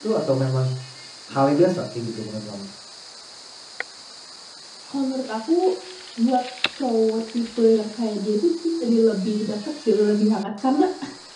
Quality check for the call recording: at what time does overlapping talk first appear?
none

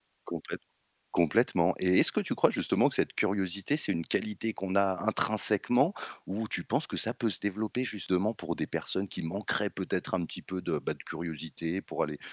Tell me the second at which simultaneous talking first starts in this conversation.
none

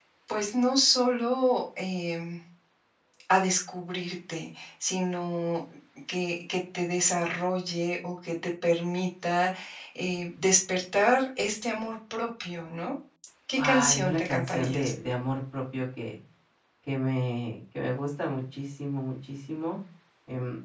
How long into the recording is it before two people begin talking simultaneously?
13.6 s

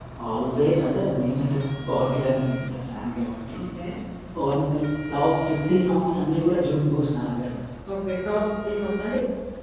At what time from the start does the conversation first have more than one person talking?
none

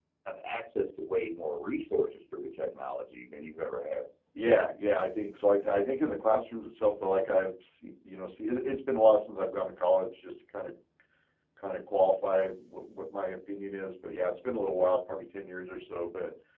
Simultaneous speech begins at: none

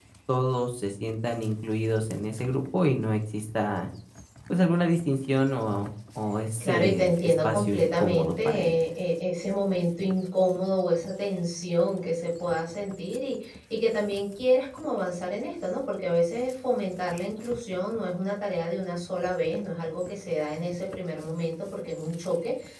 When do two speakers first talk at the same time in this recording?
6.6 s

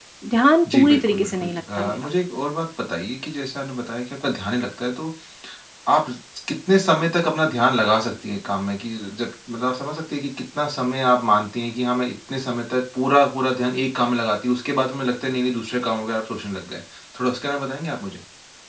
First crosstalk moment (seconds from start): 0.7 s

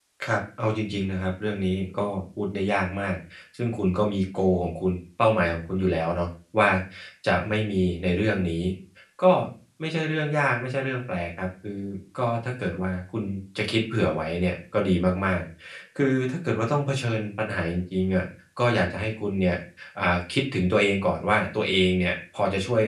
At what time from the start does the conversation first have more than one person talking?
none

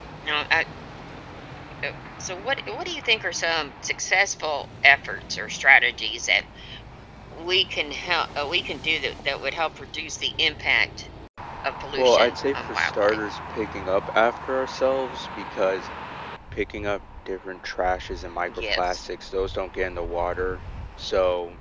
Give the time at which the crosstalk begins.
12.0 s

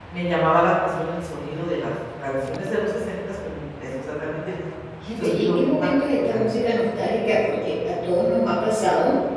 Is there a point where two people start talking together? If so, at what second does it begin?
5.2 s

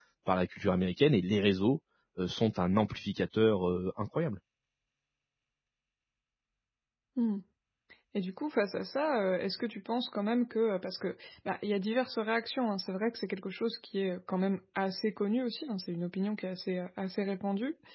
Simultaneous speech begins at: none

